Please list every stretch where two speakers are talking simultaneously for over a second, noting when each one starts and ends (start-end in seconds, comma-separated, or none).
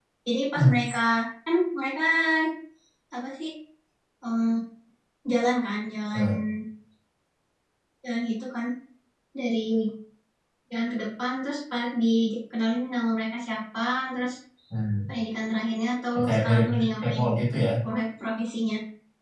16.2-17.6